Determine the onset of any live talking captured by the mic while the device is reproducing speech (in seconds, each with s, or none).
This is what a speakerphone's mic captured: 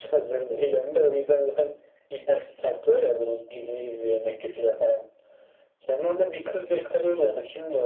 none